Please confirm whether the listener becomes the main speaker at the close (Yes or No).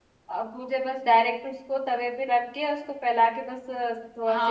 Yes